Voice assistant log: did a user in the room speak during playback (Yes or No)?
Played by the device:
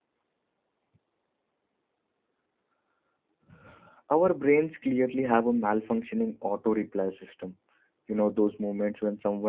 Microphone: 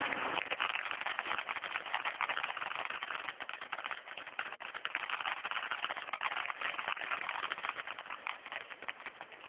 No